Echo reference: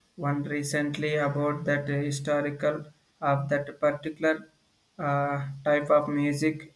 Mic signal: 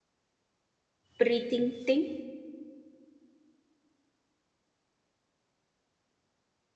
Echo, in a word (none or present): none